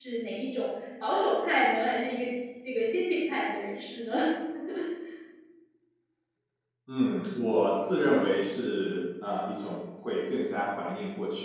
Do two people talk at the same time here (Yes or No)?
No